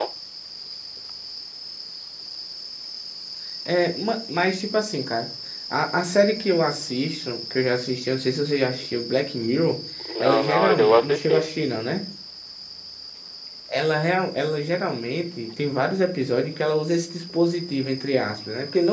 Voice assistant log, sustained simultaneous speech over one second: present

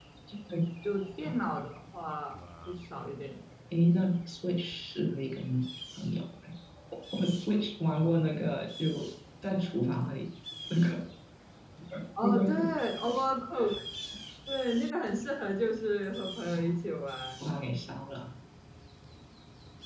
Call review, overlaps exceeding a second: none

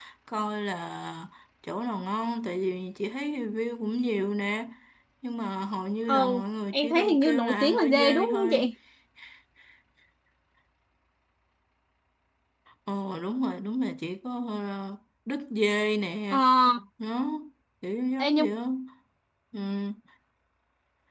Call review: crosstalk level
present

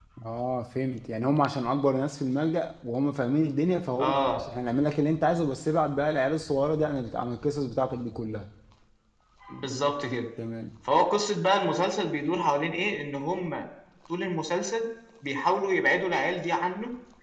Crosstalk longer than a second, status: none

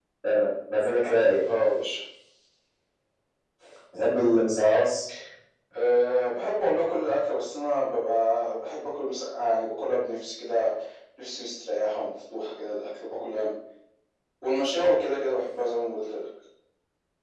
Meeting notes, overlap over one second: none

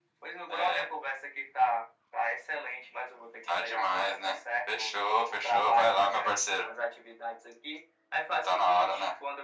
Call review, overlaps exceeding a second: present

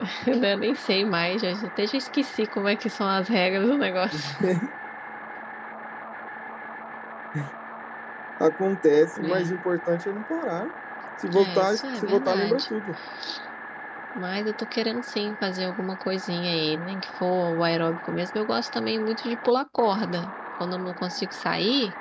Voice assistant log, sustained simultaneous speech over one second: present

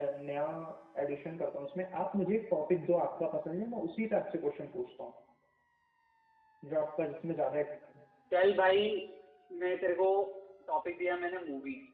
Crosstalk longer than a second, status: none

